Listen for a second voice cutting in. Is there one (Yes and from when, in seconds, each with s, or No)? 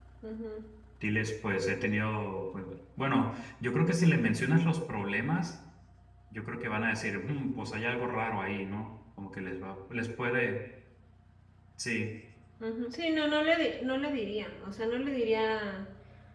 No